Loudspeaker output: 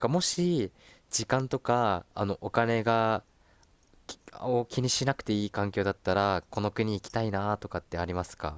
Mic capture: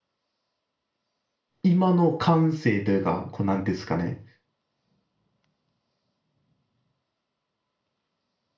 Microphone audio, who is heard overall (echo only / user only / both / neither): user only